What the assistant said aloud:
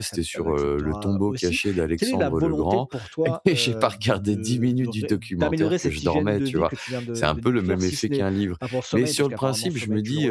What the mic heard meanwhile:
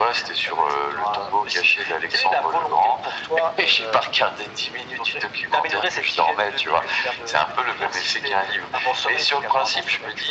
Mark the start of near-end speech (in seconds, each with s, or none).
none